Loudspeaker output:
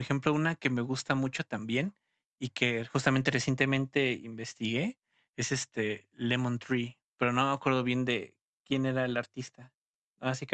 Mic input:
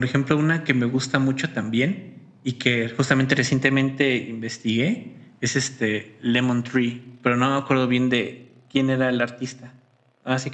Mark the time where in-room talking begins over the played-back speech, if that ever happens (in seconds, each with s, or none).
none